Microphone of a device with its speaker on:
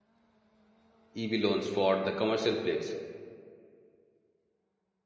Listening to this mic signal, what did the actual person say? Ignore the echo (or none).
EV loans for the commercial fleets.